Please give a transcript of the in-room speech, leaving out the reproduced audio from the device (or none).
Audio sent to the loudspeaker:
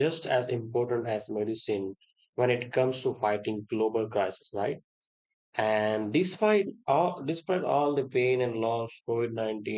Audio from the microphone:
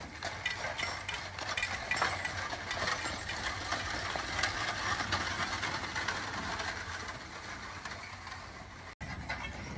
none